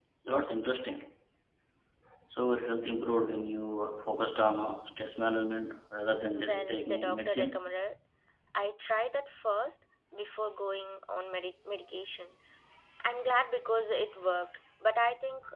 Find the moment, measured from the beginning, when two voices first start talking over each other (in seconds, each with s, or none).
6.4 s